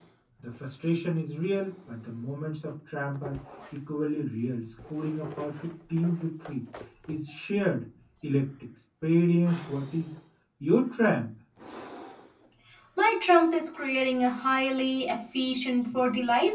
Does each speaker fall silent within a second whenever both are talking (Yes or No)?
Yes